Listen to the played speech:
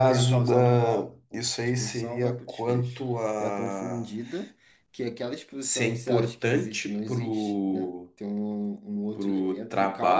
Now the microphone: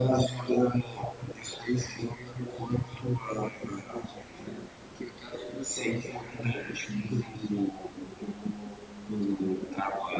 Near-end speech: none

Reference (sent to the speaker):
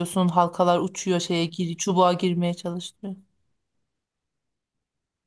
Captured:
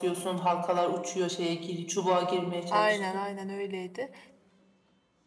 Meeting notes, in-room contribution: present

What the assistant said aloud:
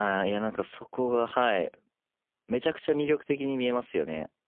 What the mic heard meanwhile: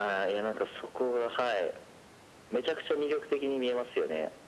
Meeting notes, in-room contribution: none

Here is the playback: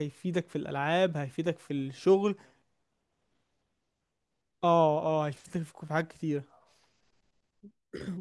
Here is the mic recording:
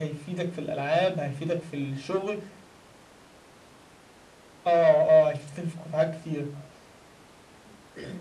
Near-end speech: none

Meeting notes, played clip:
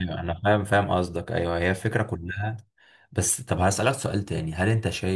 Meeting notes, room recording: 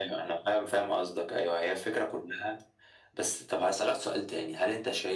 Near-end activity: none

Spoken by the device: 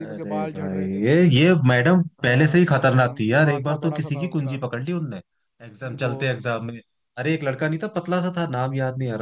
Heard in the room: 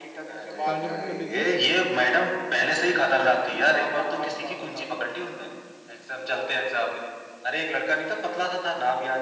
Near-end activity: present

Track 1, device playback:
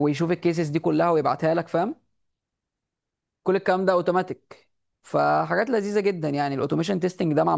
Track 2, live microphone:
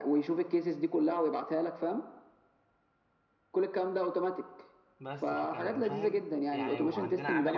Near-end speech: present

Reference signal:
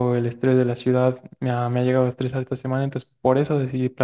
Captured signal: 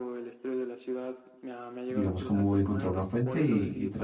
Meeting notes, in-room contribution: present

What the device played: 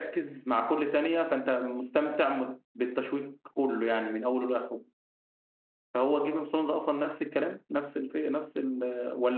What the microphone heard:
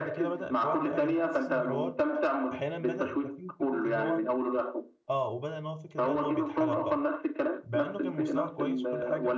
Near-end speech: present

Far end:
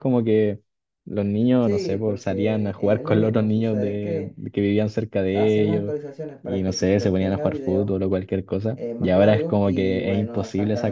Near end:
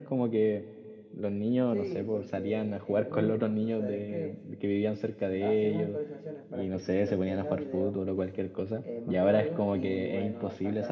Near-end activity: none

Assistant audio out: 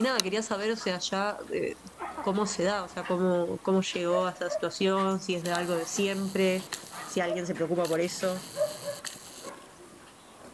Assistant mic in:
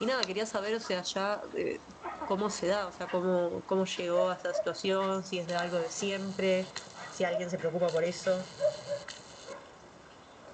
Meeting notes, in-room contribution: none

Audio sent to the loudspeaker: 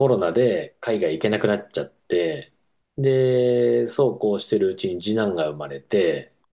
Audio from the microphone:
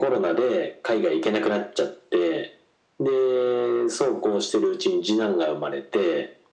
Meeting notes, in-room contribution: none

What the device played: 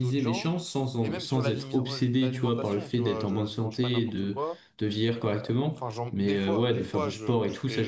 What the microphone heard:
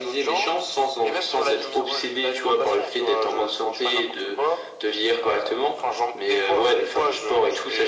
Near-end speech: none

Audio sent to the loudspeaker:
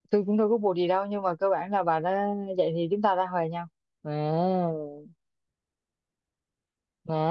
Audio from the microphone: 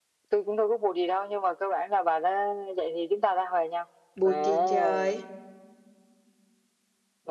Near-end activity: present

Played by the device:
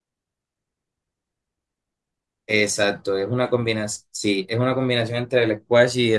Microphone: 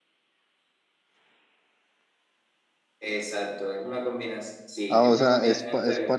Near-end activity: present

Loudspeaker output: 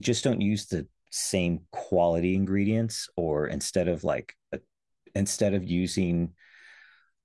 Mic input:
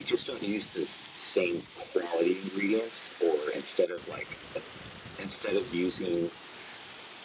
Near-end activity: none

